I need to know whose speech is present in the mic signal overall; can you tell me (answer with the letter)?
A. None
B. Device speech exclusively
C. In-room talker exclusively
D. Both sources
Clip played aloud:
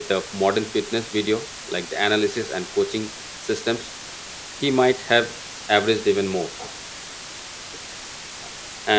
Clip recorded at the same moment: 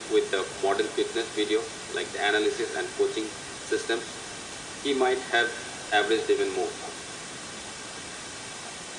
B